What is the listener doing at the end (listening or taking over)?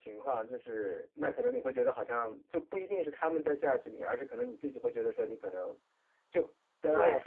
listening